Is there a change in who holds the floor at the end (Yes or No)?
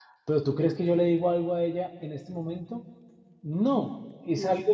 No